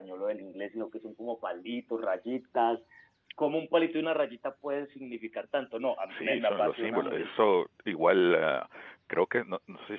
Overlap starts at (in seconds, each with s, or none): 6.1 s